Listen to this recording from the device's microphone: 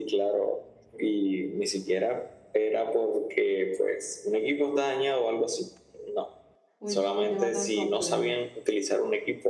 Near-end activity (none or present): present